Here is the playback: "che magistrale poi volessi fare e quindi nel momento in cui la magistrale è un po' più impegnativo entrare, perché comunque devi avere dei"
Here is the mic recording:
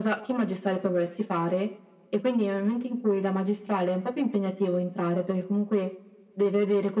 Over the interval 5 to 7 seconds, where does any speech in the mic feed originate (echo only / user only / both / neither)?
echo only